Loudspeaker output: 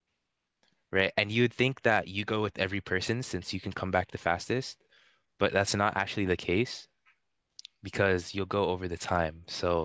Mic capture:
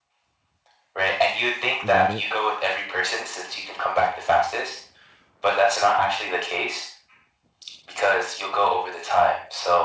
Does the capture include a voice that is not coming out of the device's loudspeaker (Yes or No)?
Yes